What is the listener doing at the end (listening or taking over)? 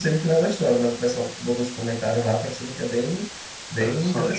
taking over